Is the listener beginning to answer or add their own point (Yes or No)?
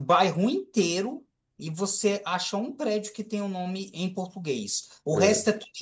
No